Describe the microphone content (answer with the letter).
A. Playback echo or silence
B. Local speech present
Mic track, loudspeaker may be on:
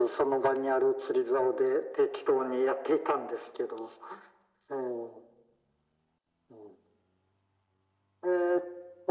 A